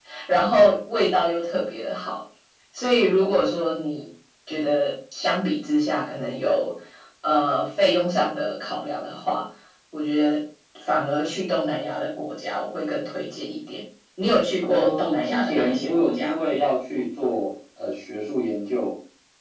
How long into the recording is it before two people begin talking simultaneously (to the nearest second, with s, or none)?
15 s